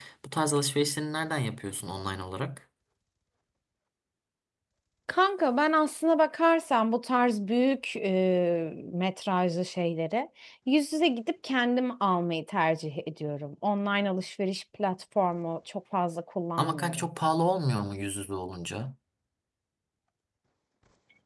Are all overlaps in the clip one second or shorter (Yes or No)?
Yes